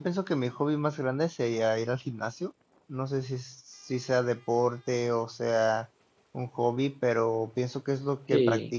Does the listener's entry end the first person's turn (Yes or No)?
No